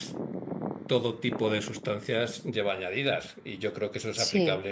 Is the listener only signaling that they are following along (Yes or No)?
Yes